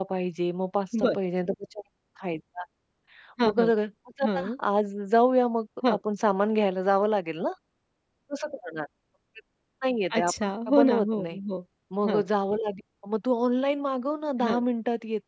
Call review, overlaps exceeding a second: present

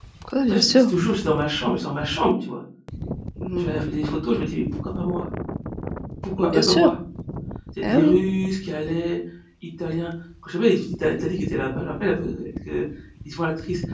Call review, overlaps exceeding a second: none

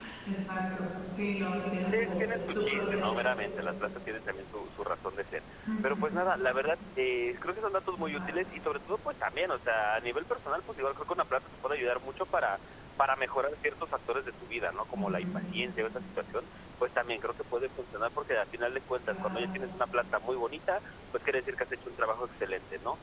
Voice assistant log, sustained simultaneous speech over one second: present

